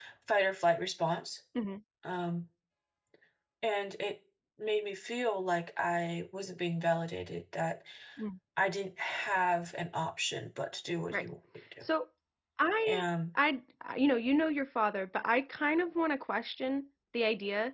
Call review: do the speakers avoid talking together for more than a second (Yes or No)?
Yes